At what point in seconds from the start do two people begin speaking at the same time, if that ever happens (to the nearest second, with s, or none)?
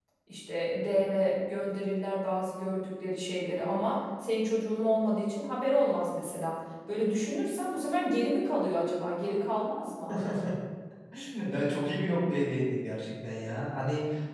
none